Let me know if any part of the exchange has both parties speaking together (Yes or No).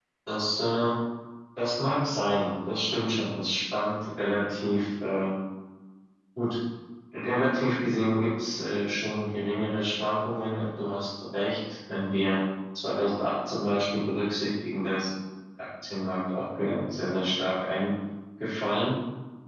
No